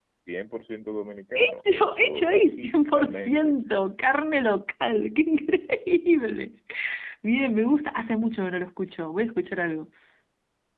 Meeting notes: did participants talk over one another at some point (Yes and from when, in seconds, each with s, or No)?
Yes, from 1.4 s